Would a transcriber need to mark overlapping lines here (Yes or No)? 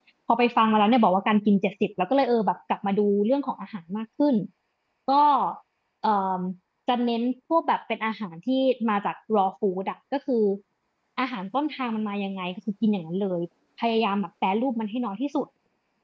No